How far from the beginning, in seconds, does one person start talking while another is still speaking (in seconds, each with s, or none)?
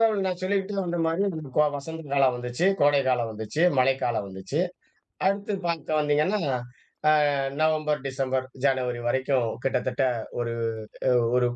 none